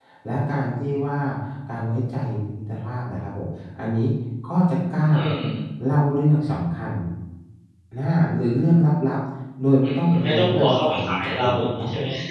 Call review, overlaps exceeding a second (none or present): present